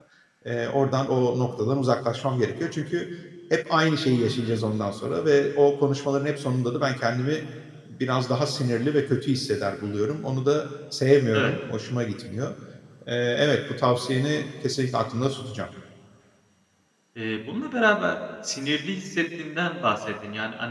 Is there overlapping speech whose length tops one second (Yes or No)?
No